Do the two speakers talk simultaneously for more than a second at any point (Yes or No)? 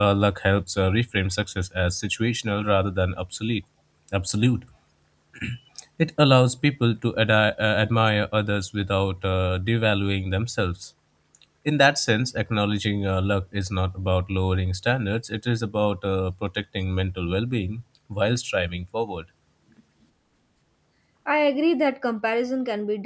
No